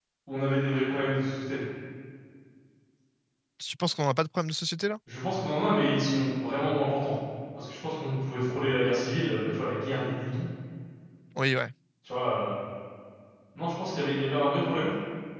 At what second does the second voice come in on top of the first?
none

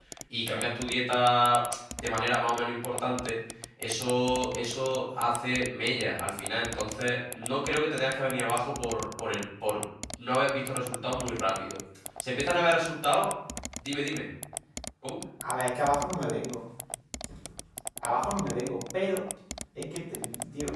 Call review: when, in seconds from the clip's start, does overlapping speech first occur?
none

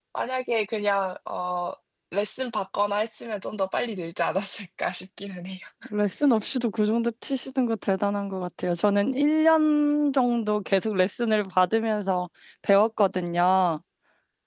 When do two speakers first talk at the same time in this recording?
none

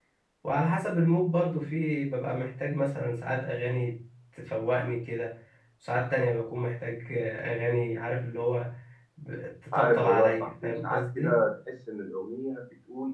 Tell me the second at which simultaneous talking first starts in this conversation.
9.7 s

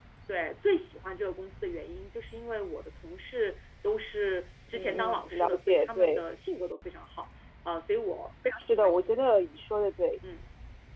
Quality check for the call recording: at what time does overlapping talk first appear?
4.7 s

